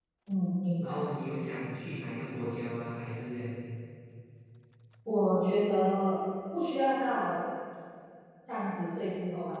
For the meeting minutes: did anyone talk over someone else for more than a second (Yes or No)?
No